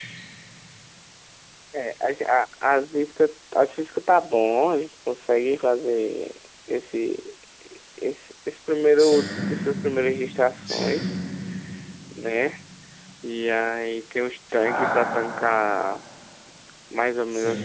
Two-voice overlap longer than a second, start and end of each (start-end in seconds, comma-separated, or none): none